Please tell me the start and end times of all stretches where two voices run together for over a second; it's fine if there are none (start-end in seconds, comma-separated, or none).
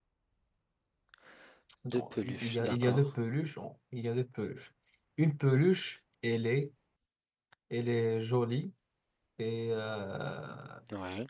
1.9-3.1